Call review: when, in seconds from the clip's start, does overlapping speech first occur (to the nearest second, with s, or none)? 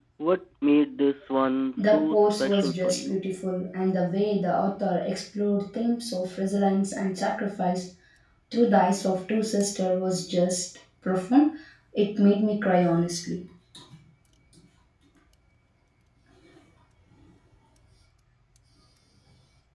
2 s